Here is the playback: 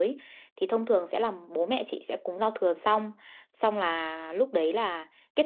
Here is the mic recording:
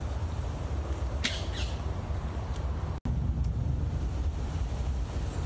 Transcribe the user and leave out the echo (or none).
none